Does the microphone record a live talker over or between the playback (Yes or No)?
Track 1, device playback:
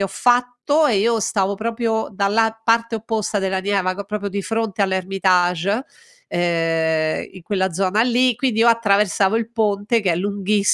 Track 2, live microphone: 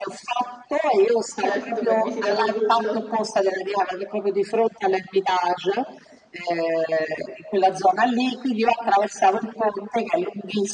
Yes